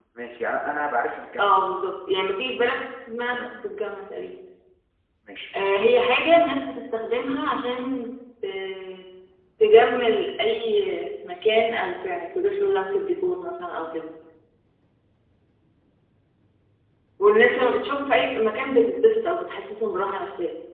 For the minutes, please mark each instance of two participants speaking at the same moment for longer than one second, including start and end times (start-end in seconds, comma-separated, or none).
none